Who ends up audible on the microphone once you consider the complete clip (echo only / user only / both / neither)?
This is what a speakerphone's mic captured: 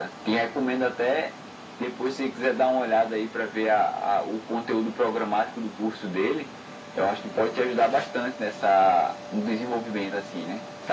echo only